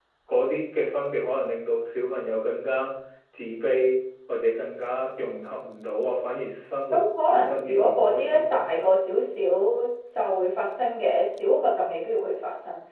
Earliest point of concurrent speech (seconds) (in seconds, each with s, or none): 6.9 s